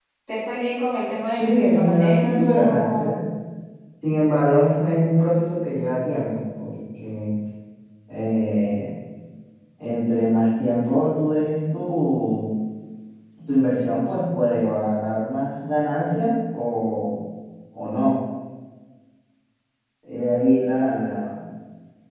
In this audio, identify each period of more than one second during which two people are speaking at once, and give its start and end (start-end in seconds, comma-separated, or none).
1.3-3.2